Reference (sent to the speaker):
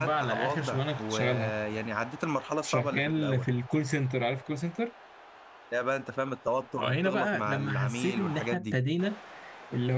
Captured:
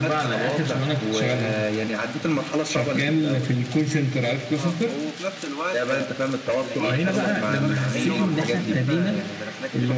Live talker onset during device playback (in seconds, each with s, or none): 4.6 s